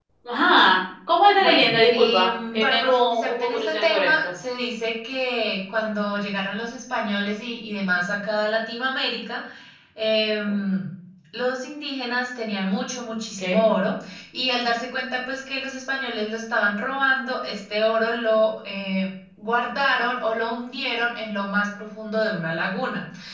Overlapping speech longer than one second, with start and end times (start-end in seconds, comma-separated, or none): 1.4-4.1